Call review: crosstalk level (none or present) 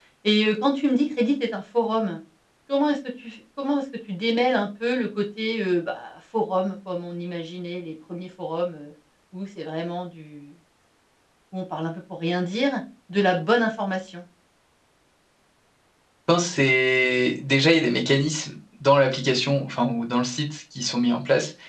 none